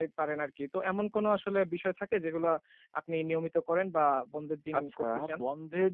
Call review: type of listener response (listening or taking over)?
taking over